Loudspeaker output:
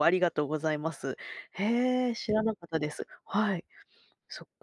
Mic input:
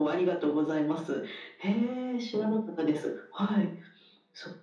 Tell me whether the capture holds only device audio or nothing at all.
Yes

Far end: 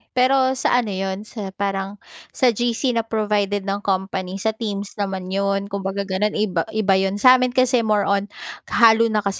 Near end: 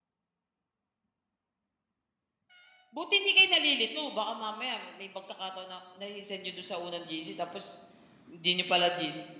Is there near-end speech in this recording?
Yes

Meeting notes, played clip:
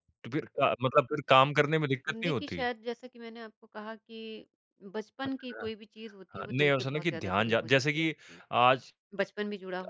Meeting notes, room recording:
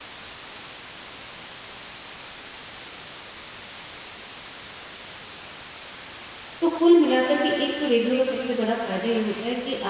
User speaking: Yes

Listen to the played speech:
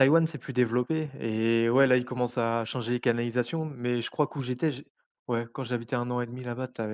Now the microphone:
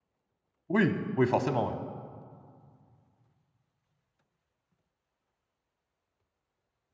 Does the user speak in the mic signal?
Yes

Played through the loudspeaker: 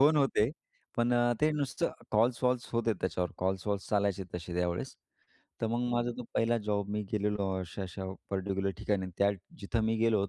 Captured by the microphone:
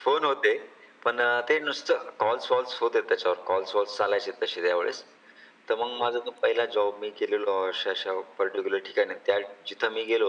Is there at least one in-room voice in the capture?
No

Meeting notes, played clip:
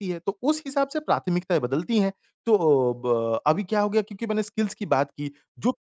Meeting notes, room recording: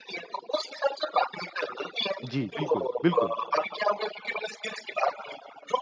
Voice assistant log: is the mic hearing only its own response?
No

